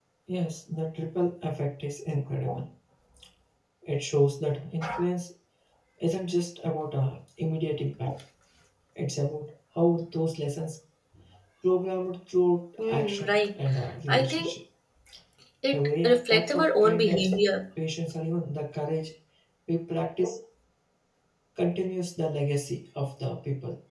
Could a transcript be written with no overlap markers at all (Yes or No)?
No